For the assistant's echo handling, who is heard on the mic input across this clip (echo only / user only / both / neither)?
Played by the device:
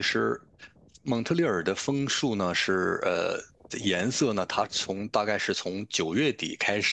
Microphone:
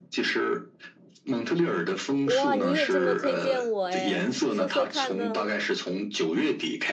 both